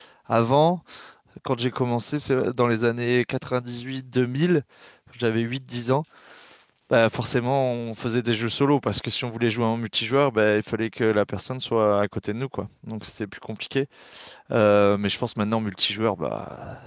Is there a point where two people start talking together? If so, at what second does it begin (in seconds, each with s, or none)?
none